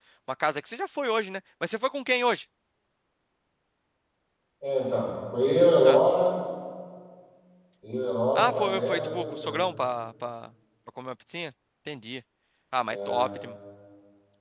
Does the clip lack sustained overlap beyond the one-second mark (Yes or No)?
No